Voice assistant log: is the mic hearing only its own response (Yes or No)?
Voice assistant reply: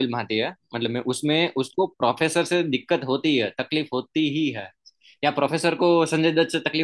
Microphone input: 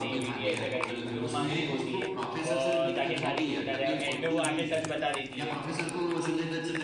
No